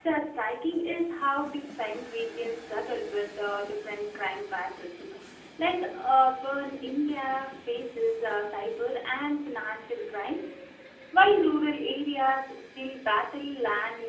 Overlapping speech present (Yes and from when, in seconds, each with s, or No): No